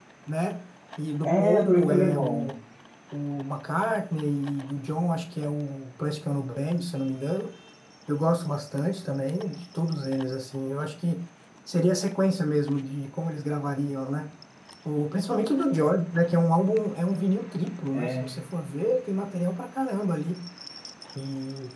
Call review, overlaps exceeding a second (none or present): present